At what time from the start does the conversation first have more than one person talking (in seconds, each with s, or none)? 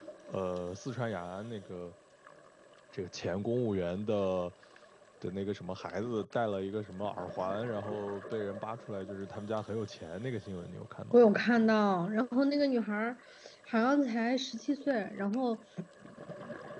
none